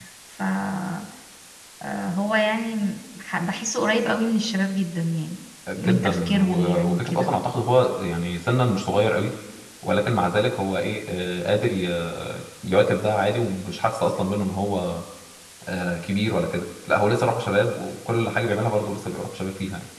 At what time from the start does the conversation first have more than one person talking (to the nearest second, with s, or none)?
6 s